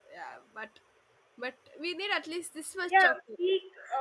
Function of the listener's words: taking over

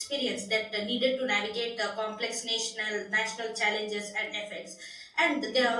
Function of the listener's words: listening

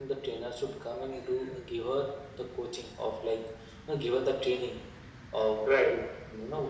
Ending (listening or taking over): listening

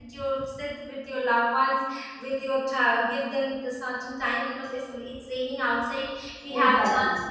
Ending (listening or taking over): listening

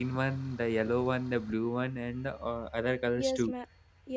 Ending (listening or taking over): taking over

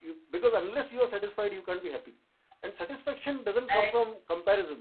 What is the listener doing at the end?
listening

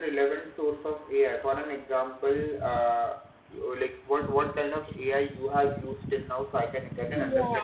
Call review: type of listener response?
taking over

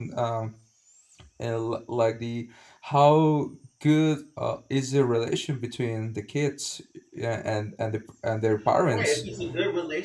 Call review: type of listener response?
taking over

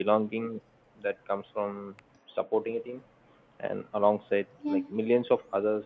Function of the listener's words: listening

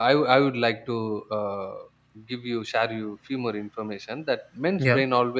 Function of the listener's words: listening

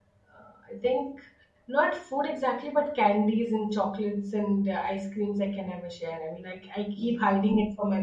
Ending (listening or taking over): listening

